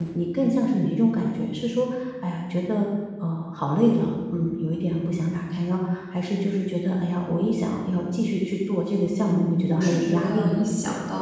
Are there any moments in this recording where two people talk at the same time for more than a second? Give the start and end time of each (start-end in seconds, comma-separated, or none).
9.0-10.6